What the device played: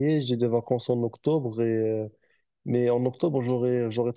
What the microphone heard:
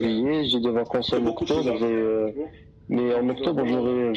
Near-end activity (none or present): present